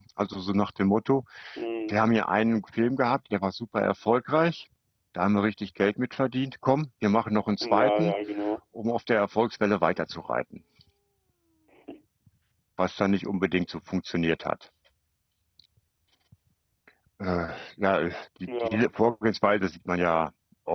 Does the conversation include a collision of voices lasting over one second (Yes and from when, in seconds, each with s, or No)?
No